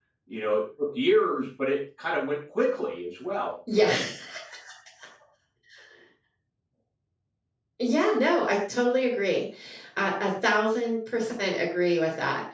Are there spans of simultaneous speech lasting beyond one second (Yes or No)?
No